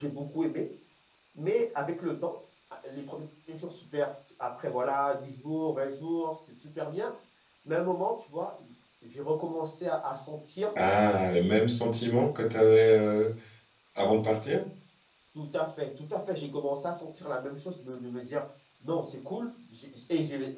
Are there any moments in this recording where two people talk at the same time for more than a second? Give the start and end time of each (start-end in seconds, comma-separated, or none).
none